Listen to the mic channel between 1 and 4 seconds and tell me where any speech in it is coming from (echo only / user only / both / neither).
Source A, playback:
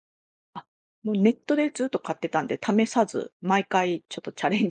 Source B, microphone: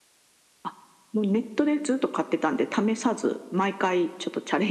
echo only